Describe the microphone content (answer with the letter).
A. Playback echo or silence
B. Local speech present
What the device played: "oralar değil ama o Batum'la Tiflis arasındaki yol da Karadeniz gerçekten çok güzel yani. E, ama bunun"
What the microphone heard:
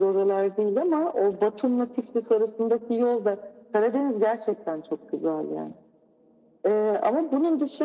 A